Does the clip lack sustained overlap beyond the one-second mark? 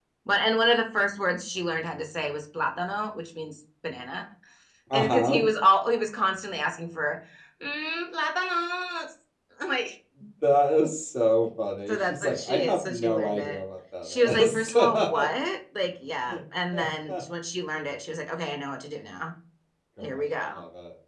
No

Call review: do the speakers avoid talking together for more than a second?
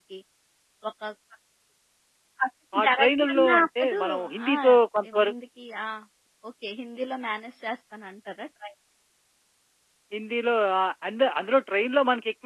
No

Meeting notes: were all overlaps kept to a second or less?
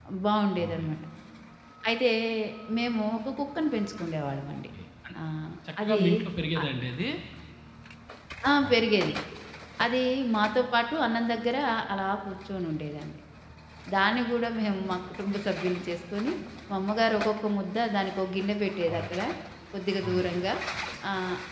Yes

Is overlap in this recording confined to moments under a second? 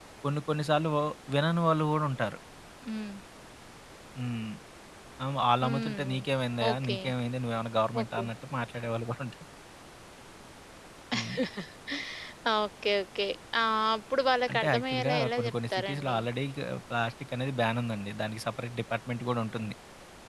No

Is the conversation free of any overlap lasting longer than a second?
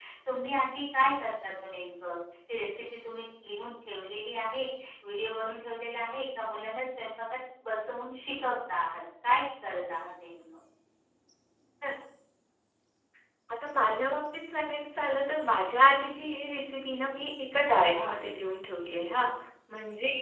Yes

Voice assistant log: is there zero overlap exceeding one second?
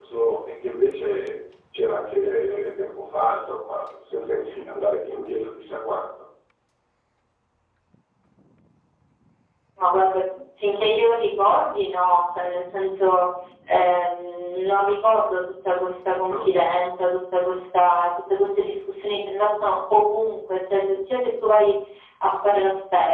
Yes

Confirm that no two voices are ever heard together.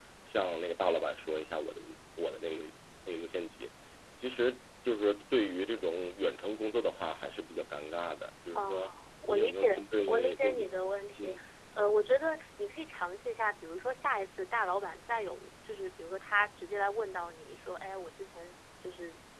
No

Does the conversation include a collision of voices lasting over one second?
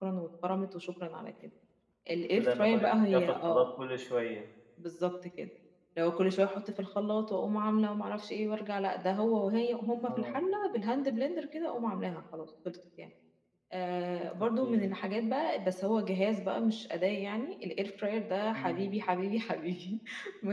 Yes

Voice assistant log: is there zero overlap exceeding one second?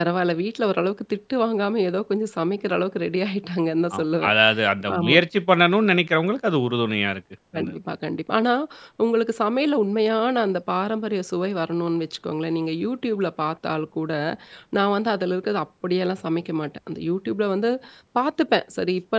Yes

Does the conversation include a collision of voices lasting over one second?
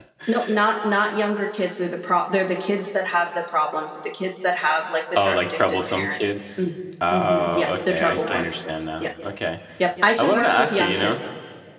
Yes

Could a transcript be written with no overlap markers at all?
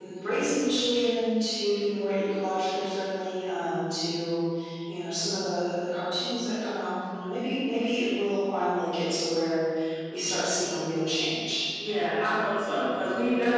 Yes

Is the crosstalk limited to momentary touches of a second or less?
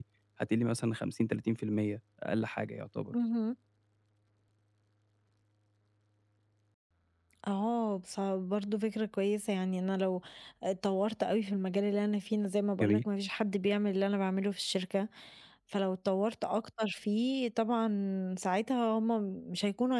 Yes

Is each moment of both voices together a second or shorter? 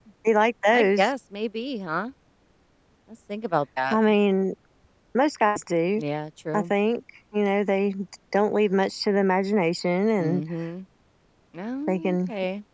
Yes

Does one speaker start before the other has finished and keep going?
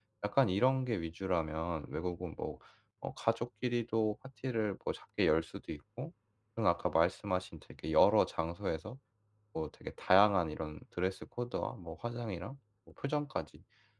No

